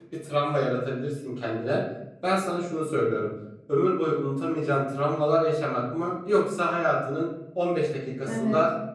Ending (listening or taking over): listening